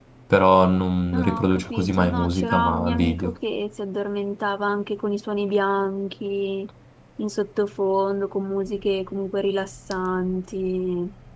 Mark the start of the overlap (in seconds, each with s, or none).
1.1 s